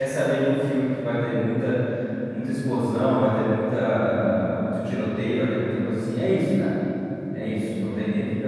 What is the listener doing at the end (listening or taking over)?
listening